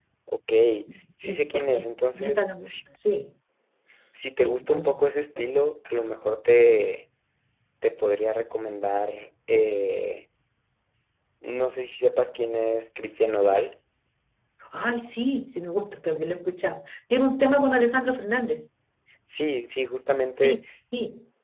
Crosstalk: present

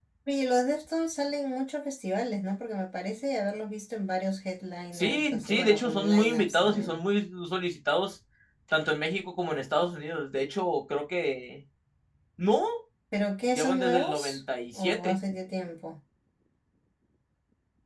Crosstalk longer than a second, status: present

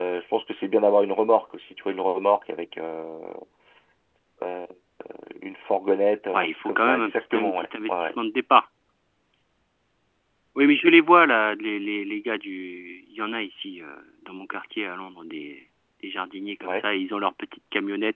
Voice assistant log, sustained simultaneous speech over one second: present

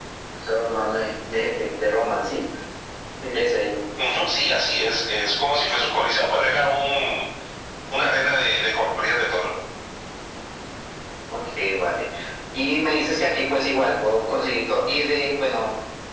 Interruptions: none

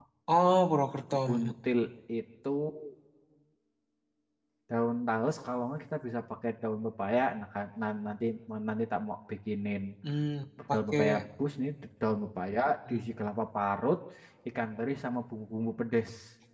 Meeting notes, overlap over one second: none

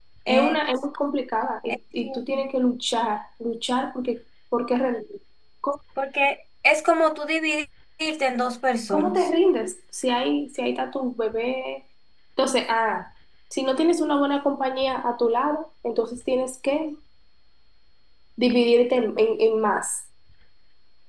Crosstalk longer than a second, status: none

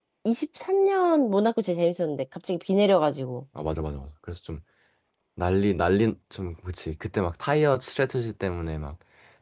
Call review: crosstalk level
none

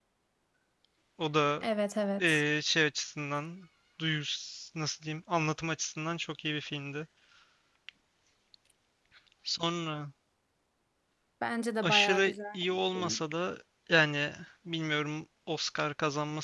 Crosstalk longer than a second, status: present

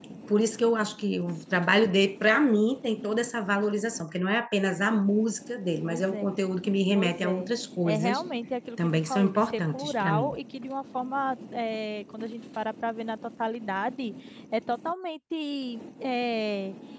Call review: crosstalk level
present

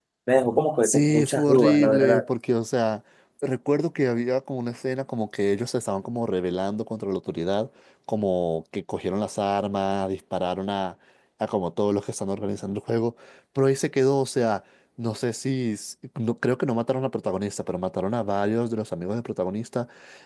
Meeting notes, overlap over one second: present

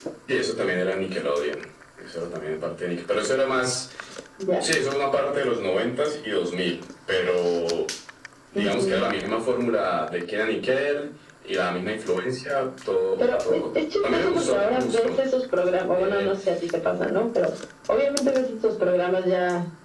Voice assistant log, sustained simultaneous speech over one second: present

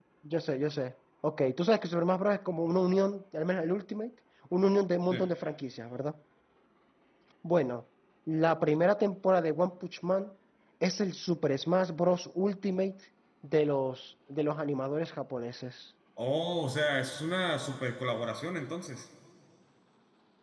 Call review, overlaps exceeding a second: none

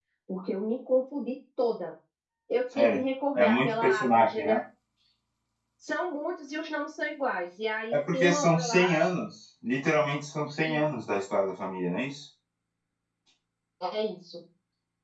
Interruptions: present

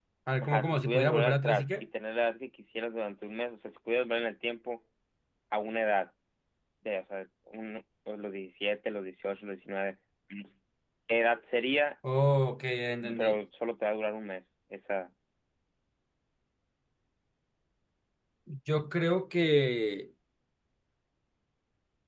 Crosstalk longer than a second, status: present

